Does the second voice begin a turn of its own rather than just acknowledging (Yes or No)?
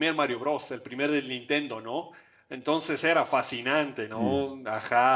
No